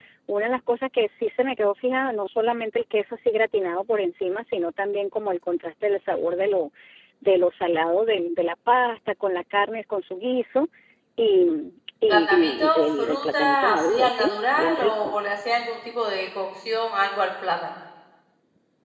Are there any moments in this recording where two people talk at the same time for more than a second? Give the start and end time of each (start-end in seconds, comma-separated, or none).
12.1-15.2